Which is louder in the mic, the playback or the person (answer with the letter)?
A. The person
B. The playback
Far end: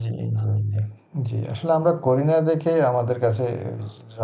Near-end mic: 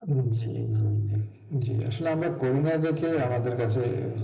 B